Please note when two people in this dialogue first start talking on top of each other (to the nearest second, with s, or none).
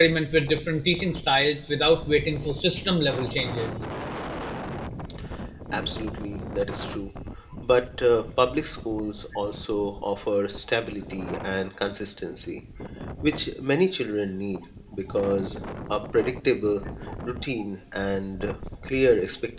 none